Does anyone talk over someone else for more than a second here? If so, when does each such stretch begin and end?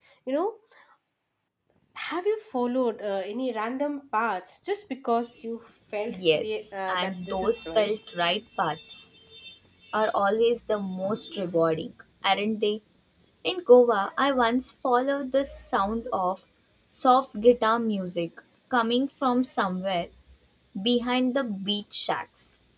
6.2-7.9

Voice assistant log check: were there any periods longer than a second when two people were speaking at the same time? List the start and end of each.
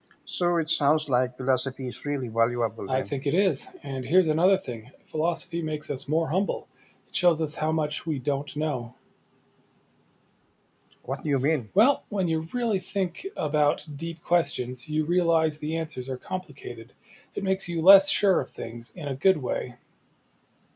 none

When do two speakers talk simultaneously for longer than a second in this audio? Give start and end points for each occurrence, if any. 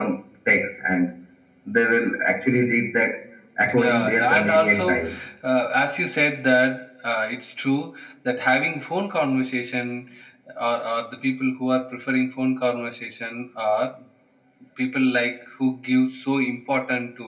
3.7-5.0

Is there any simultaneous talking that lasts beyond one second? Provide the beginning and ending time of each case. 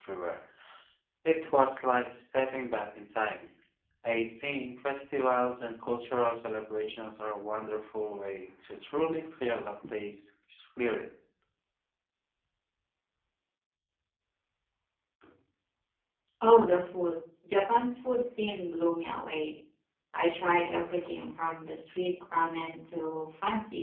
none

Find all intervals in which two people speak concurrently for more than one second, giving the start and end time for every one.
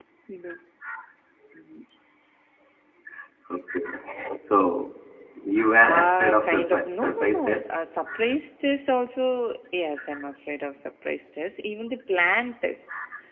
5.8-7.7

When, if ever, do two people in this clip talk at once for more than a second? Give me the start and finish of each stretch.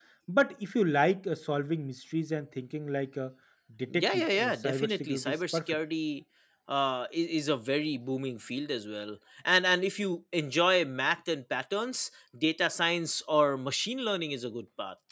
3.9-5.8

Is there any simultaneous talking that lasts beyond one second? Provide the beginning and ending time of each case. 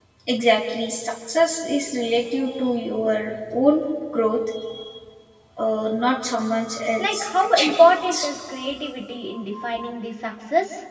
7.0-8.2

